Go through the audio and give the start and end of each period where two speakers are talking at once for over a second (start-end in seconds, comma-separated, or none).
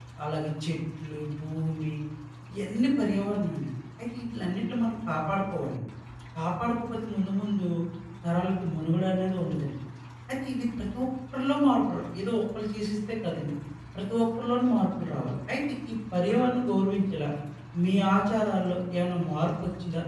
none